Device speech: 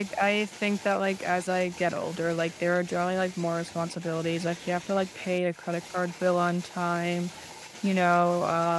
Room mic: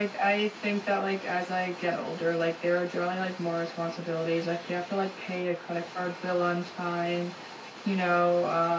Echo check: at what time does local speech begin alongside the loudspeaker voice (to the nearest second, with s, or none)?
none